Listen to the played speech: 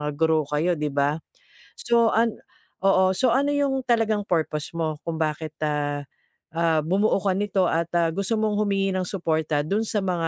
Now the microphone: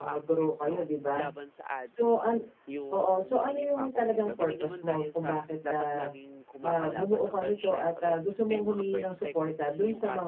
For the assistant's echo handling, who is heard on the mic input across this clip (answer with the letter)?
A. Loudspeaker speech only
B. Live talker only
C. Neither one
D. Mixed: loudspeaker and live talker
D